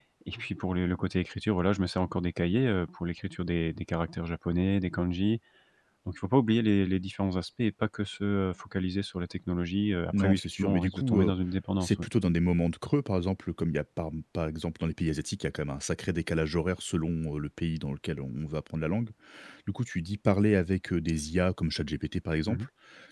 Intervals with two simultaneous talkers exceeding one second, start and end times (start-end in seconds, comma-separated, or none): 10.1-11.3